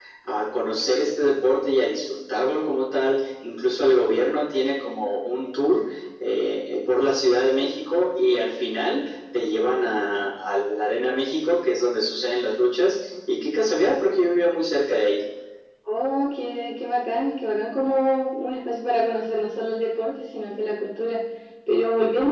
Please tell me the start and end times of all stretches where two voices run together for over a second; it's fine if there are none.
none

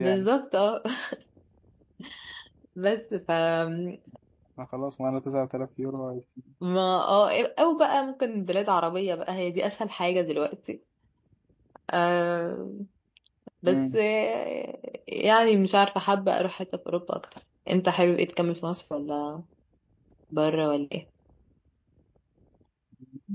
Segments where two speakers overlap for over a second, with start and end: none

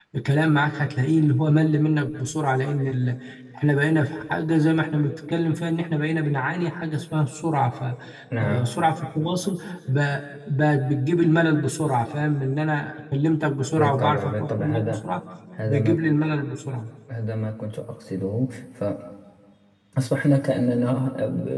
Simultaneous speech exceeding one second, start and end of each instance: 13.8-15.0

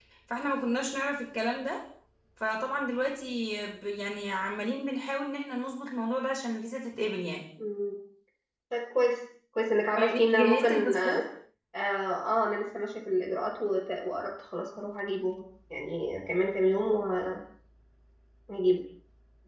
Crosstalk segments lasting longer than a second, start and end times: 10.0-11.2

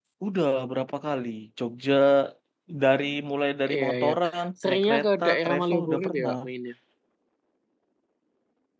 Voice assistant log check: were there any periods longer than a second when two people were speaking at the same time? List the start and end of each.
4.7-6.4

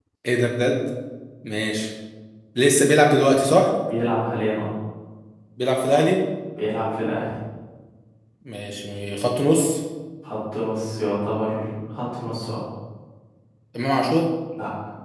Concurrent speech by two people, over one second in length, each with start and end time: none

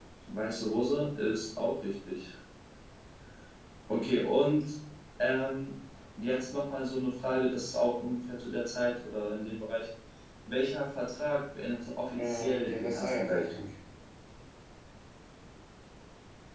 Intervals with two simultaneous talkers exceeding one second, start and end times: 12.2-13.6

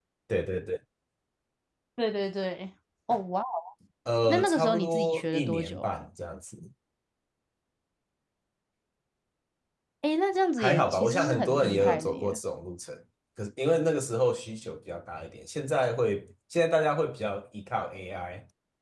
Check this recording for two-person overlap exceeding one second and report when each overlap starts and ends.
4.3-5.9, 10.6-12.4

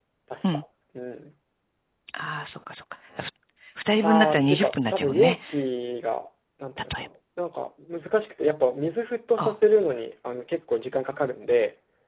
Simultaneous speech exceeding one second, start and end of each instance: 4.0-5.3

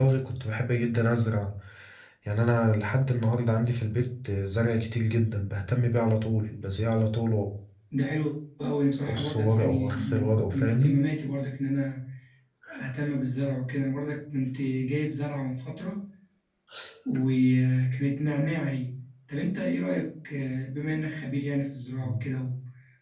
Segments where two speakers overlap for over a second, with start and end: 9.1-11.0

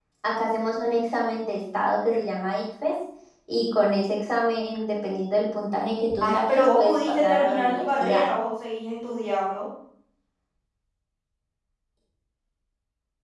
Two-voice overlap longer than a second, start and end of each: 6.2-8.2

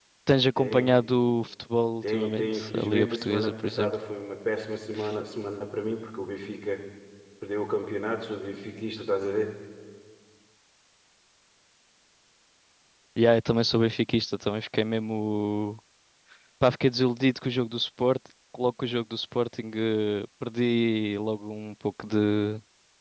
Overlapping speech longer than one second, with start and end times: 2.0-3.9

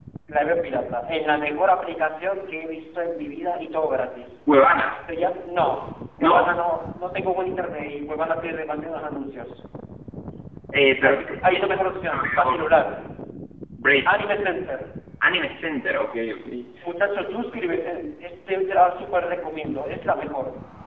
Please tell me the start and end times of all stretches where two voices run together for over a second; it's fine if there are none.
11.0-12.6

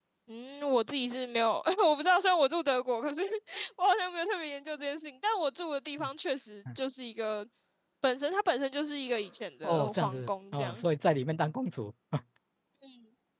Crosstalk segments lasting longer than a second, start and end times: 9.6-10.8

